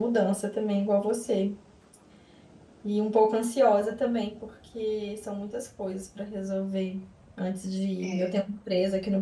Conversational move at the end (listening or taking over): listening